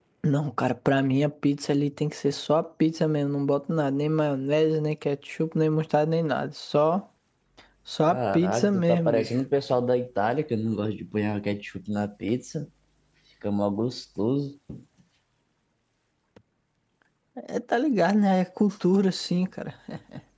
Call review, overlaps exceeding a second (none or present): present